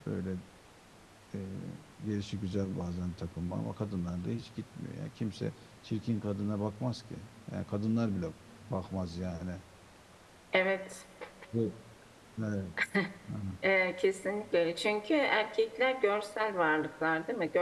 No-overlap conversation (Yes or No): Yes